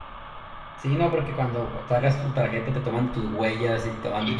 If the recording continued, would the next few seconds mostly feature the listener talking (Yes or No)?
Yes